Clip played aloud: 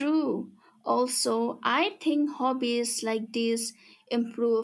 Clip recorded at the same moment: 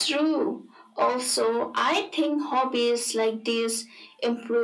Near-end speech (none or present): none